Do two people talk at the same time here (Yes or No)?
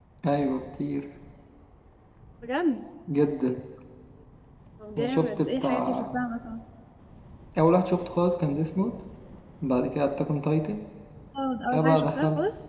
Yes